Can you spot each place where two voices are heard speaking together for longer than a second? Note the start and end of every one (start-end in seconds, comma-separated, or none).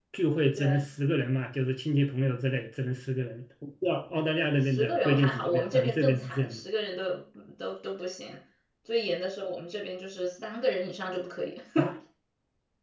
4.7-6.6